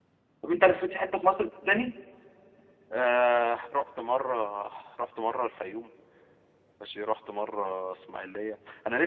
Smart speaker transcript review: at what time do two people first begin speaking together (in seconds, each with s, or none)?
none